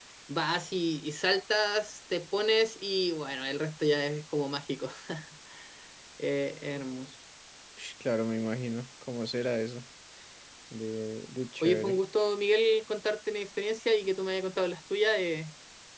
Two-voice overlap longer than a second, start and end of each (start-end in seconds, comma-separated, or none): none